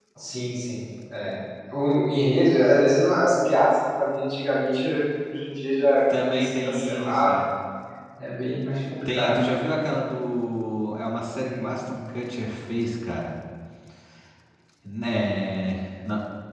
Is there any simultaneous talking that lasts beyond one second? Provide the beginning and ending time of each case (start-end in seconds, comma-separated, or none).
6.1-7.3